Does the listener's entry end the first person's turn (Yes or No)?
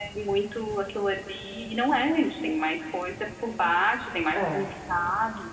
No